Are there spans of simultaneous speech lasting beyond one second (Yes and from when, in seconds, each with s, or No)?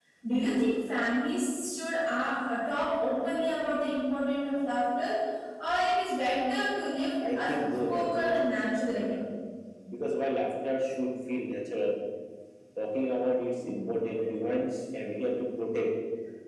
Yes, from 7.2 s